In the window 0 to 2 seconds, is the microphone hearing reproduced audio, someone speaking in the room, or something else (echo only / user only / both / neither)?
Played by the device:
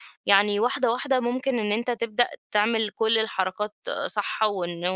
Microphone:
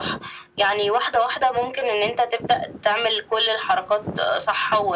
echo only